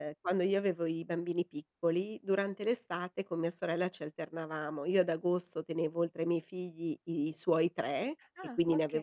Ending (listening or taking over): listening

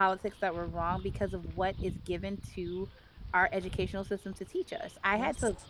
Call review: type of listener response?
listening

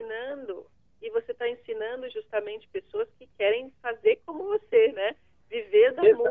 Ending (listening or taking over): taking over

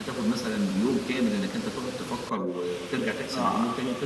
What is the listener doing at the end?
taking over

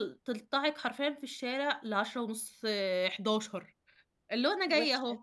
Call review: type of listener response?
listening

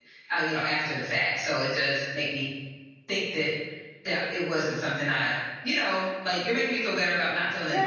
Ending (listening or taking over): taking over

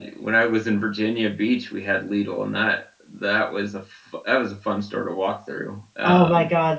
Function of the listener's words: taking over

